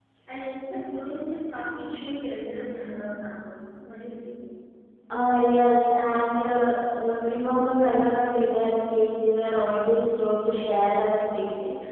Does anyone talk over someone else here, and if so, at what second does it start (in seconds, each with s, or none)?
none